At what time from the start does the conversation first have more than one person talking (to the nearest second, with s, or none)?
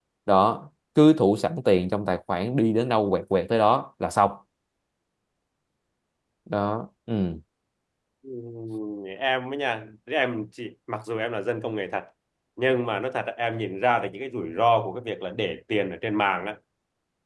none